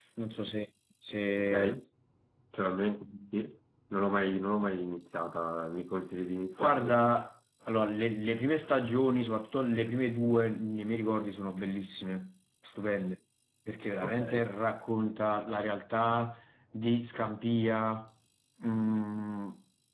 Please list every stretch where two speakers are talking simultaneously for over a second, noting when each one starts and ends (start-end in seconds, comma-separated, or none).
none